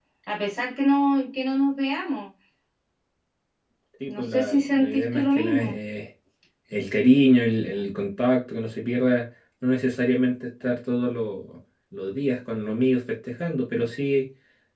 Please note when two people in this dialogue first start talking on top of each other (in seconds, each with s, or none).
4.1 s